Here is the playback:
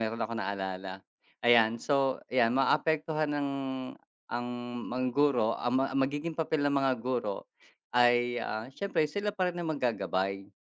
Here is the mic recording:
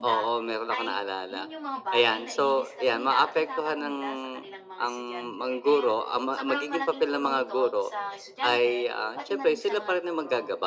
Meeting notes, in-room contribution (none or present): present